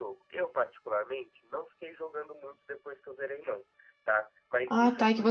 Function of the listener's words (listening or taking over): taking over